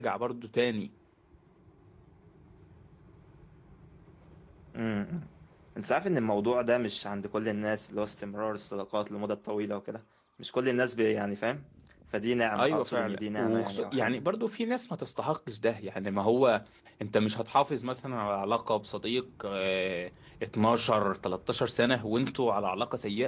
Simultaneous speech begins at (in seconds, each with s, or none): 12.6 s